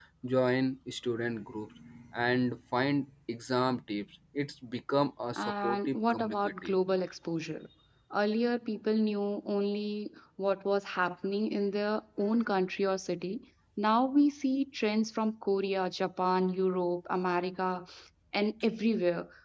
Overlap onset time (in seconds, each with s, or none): 5.4 s